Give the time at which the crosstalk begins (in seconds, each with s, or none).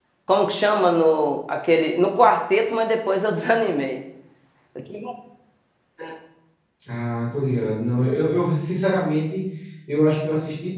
none